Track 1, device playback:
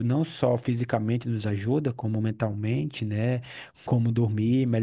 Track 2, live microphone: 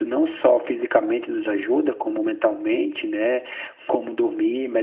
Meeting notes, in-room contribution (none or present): none